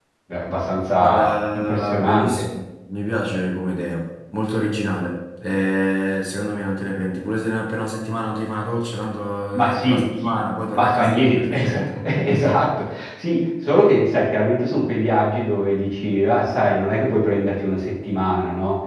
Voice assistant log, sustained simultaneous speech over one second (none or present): present